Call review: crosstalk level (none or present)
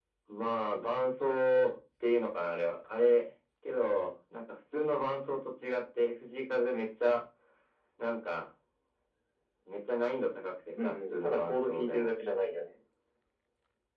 present